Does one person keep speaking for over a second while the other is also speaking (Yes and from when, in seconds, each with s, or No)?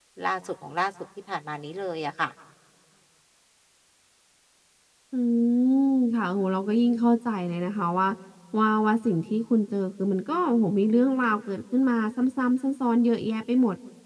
No